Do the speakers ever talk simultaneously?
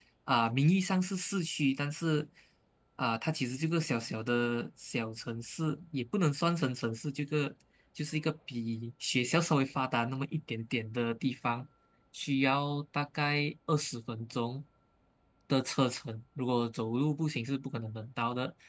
No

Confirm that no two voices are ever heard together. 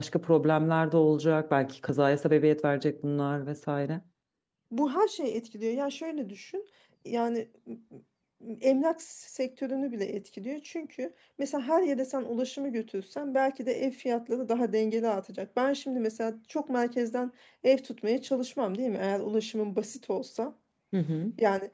Yes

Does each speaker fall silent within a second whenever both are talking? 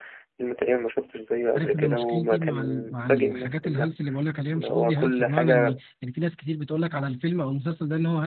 No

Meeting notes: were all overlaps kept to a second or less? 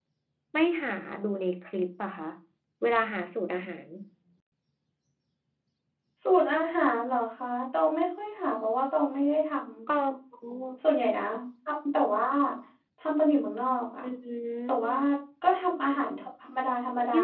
Yes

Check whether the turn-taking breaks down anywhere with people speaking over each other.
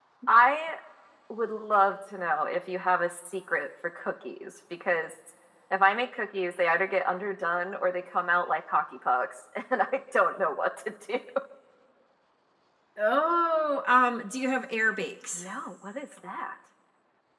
No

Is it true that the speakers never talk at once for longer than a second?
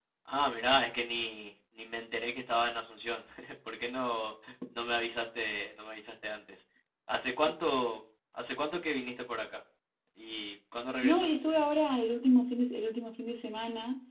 Yes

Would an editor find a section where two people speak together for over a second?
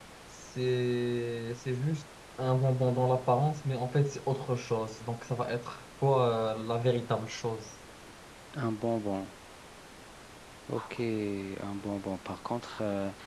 No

